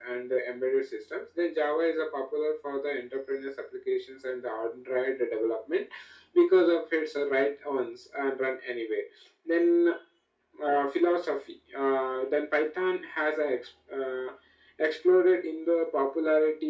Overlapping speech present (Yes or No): No